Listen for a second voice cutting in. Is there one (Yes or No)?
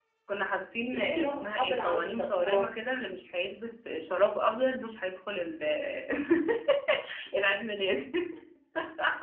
Yes